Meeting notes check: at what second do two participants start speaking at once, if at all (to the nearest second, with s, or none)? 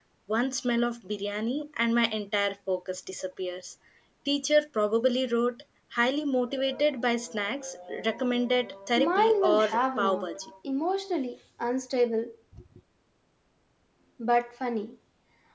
9 s